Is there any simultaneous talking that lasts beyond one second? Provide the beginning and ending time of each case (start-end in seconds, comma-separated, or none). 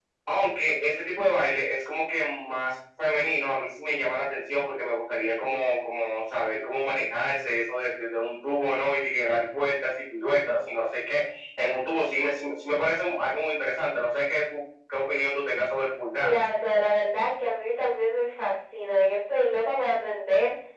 none